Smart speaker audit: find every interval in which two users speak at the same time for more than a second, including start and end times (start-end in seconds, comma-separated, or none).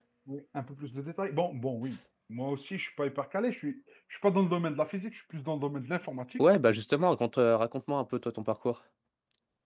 none